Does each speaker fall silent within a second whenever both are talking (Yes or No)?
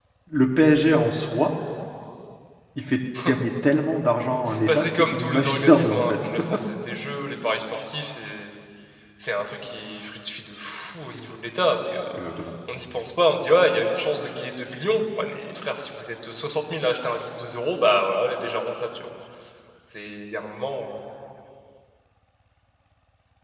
No